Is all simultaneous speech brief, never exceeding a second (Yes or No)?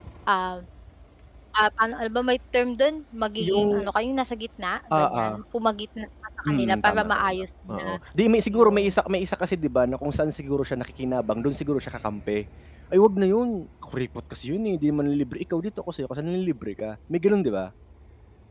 No